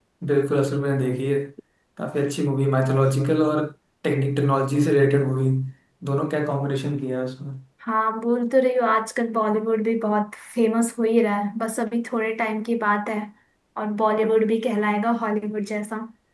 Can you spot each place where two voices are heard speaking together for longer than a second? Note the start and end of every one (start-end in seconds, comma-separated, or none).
none